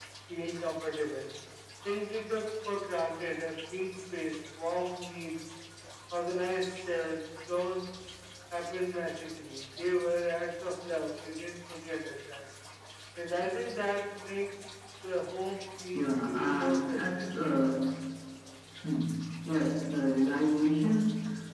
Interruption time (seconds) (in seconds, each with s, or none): 15.9 s